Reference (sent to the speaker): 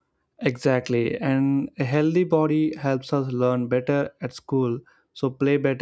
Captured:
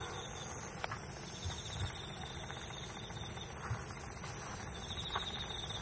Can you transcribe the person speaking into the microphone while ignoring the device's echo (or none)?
none